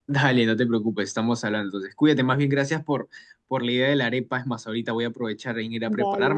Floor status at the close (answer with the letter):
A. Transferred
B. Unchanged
B